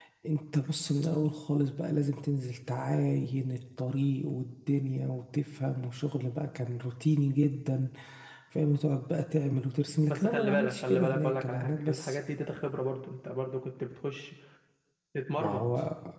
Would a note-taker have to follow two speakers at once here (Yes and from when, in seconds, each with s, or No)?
Yes, from 10.1 s